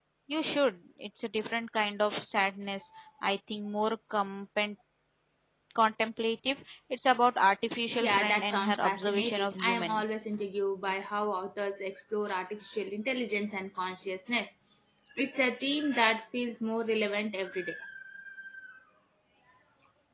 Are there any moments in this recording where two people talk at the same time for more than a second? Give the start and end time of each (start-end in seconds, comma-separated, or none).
8.0-10.3